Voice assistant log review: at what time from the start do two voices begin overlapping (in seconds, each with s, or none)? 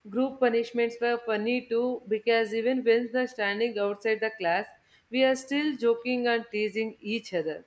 none